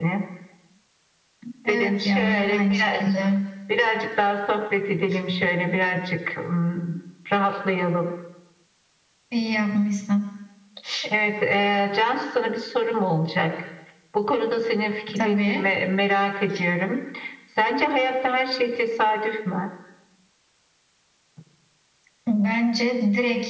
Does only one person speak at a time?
No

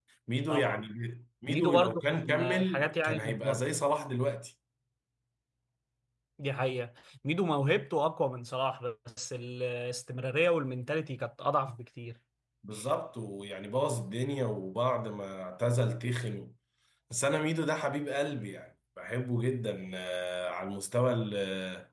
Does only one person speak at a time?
No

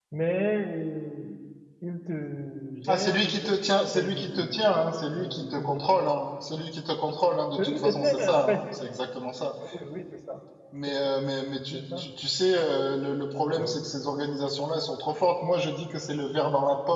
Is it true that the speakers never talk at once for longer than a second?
No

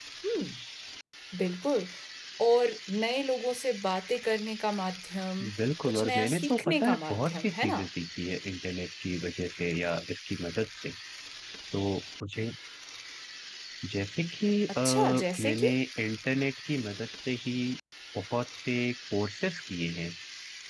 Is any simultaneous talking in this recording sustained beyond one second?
Yes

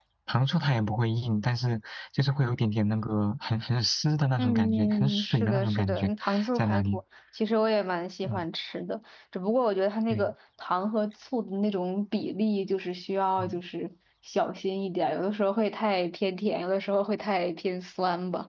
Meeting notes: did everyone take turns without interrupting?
No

